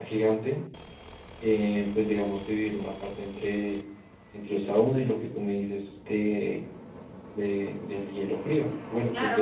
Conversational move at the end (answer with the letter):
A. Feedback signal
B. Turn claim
B